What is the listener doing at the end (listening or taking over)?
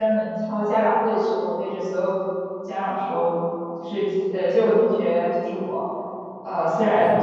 listening